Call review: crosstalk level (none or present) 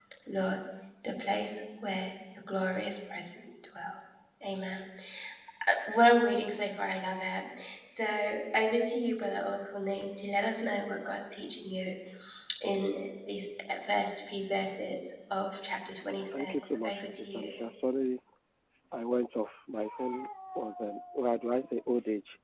present